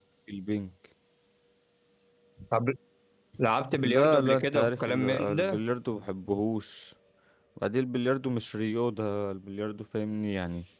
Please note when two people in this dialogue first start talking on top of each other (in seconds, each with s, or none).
3.8 s